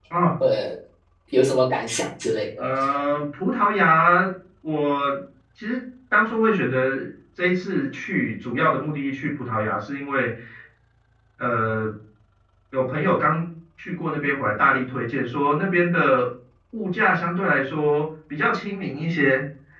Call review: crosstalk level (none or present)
none